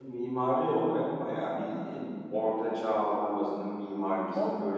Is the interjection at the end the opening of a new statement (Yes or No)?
No